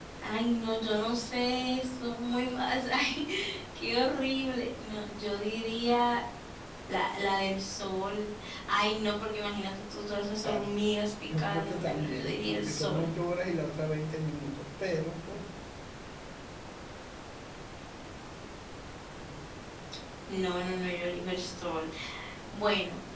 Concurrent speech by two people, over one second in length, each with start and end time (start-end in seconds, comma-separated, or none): 11.4-13.1